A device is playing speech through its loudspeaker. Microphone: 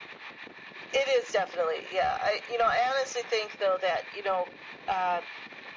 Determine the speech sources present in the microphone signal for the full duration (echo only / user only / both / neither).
echo only